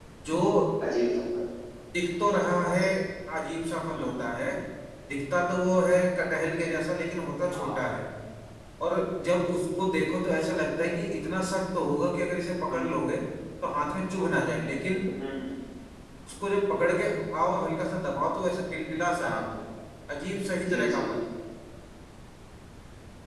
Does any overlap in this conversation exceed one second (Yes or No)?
No